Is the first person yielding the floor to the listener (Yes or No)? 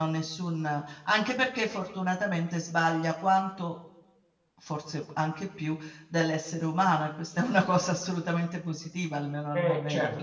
Yes